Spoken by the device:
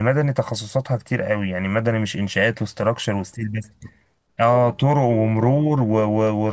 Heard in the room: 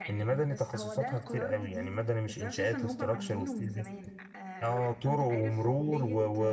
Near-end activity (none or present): present